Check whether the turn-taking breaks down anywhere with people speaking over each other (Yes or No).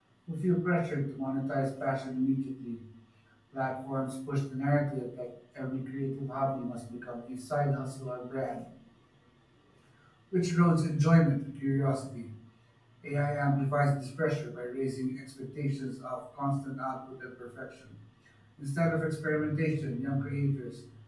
No